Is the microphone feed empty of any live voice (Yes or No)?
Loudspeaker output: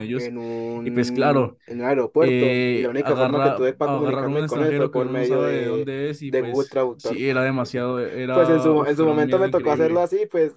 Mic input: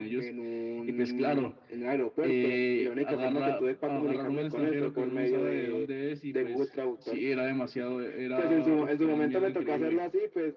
Yes